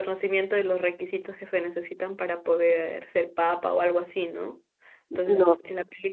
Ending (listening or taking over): listening